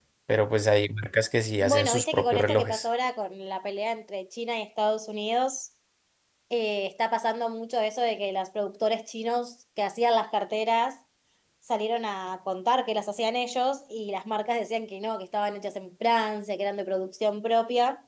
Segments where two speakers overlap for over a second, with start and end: 1.6-2.9

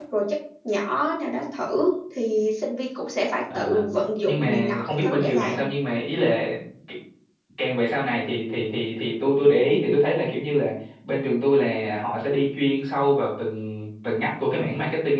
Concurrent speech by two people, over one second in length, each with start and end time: 4.2-5.6

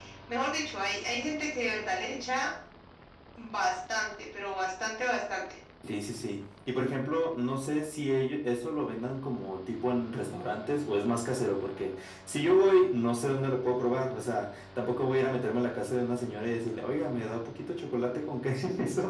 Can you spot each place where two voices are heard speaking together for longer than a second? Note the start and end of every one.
none

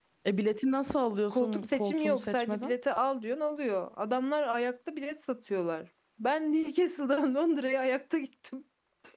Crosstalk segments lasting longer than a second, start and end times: 1.3-2.7

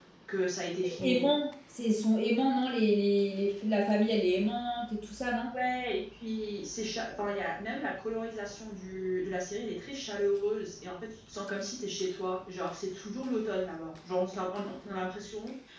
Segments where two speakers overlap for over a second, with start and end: none

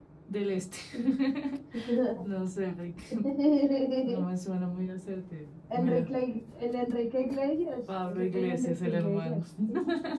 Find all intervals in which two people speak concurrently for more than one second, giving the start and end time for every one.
8.0-9.4

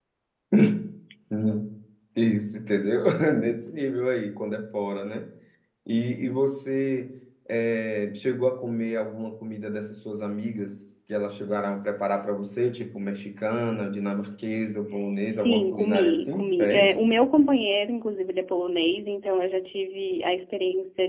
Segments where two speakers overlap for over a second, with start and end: 15.3-16.9

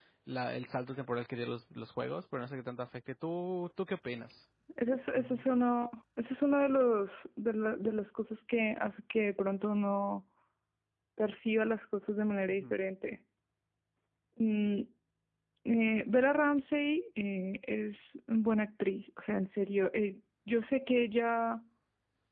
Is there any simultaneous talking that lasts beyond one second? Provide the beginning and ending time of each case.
none

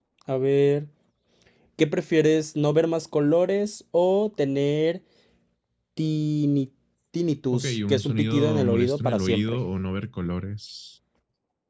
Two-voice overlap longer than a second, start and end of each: 7.5-9.6

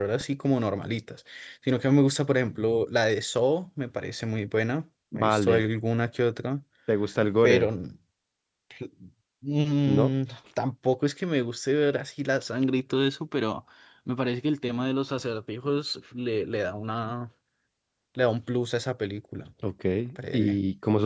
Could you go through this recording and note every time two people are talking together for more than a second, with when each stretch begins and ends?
none

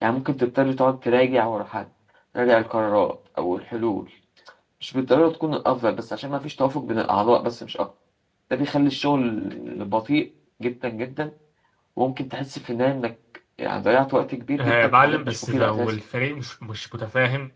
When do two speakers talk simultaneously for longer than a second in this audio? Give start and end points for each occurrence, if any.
14.6-15.9

